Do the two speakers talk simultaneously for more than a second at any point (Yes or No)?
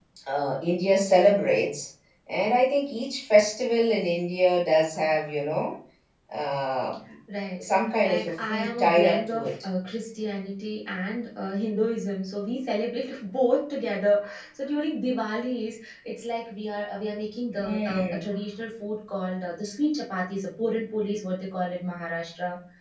Yes